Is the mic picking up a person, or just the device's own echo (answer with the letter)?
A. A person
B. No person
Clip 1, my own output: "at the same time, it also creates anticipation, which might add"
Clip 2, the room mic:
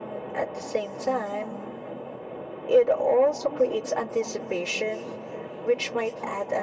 B